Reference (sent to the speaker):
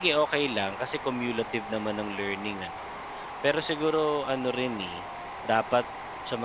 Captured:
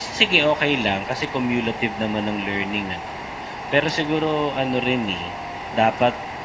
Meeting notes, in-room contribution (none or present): none